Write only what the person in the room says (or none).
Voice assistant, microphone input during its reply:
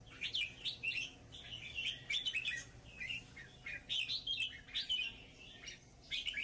none